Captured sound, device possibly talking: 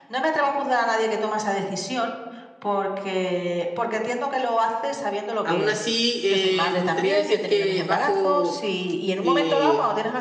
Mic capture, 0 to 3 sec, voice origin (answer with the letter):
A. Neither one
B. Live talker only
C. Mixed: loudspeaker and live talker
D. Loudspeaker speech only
D